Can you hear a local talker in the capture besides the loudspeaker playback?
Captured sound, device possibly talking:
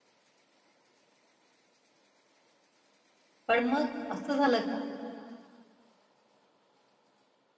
Yes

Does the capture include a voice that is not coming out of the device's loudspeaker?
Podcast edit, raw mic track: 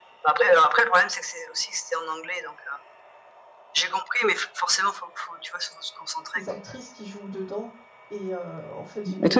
Yes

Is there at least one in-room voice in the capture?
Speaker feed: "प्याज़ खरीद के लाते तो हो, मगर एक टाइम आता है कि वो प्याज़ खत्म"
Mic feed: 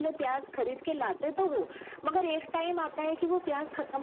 No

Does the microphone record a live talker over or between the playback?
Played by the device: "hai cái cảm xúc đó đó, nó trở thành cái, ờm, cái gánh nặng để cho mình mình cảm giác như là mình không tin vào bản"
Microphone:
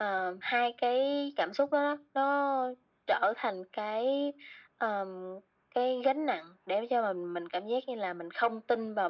No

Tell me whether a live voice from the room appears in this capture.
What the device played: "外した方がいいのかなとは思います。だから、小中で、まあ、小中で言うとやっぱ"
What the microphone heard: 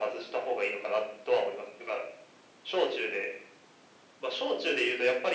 No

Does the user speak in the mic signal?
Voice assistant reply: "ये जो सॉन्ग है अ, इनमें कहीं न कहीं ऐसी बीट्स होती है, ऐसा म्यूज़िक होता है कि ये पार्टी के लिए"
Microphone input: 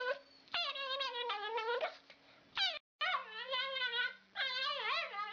No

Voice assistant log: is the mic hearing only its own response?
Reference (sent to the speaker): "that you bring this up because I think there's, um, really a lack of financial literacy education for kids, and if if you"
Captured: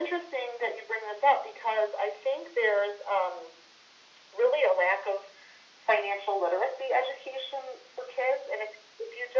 Yes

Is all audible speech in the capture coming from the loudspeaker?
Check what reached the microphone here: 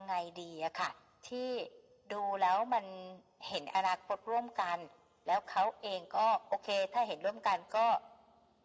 Yes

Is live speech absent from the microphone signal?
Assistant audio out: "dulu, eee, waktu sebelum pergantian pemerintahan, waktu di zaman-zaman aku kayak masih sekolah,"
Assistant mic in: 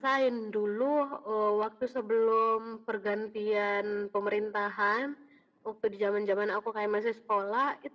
Yes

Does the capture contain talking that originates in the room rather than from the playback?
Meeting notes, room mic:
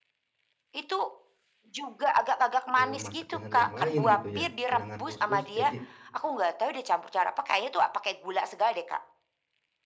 Yes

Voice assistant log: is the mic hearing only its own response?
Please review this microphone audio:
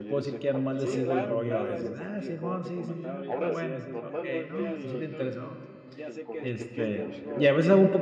No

